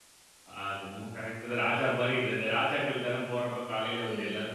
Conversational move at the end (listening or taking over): taking over